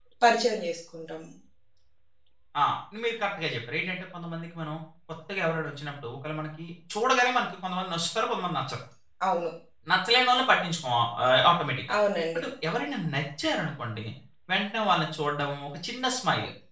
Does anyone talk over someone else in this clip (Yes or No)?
No